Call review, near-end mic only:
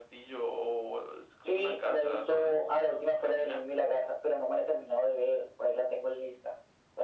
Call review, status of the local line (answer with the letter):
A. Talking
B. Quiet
B